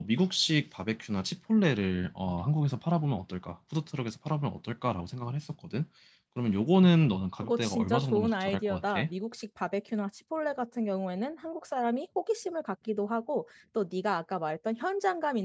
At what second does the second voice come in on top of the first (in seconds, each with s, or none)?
7.4 s